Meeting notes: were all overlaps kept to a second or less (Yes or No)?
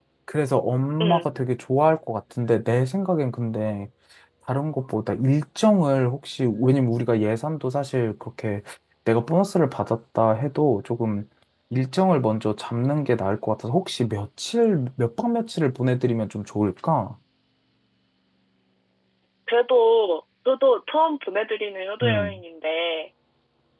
Yes